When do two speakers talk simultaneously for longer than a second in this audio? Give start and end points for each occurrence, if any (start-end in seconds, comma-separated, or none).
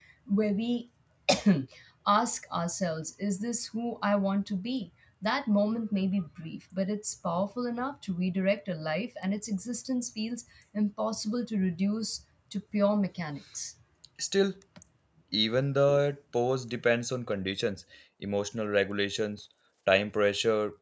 none